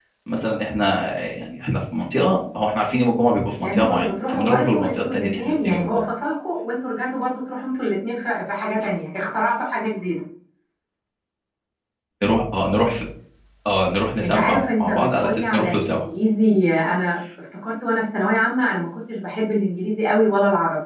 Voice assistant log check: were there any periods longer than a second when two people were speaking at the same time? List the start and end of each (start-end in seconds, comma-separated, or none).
3.6-6.0, 14.2-16.0